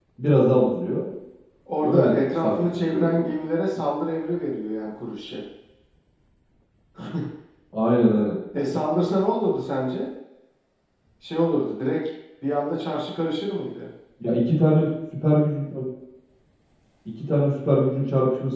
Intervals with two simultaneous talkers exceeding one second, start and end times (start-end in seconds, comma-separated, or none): 1.8-3.3